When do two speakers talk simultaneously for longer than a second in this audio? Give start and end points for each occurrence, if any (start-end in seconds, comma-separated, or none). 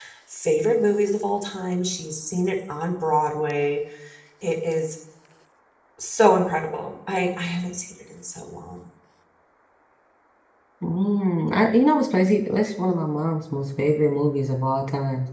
none